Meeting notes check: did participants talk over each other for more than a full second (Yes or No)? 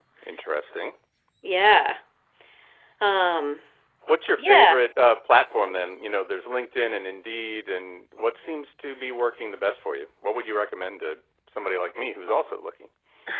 No